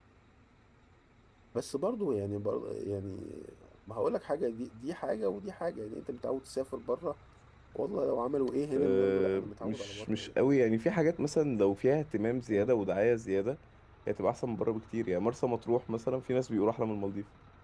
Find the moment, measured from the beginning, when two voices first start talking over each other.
8.8 s

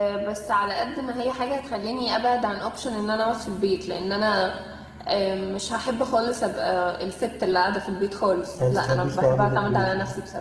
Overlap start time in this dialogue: 8.6 s

